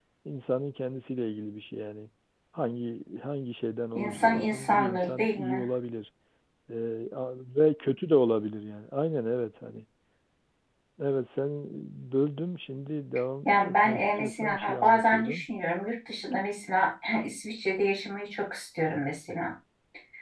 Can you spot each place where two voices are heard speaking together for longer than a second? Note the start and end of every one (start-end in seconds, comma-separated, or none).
4.0-5.7, 13.4-15.5